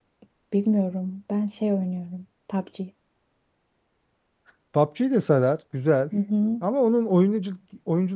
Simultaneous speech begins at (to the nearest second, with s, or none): none